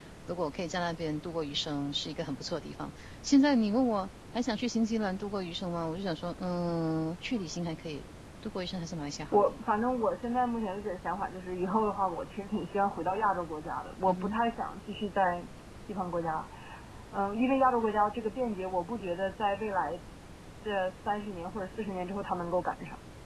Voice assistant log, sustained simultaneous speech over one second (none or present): none